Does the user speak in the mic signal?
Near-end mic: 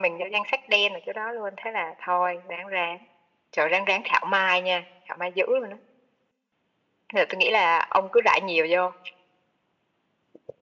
No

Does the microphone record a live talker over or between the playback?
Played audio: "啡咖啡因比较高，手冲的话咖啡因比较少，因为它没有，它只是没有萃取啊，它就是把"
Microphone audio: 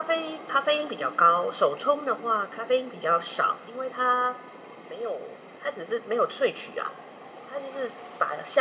No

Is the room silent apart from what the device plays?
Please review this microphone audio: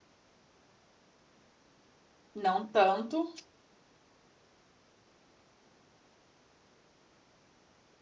No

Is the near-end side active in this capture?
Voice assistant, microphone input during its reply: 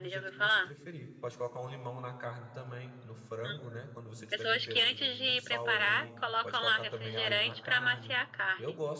Yes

